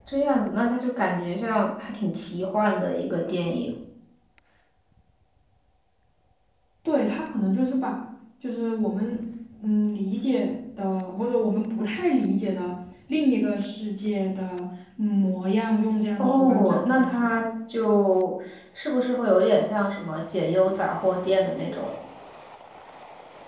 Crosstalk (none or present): present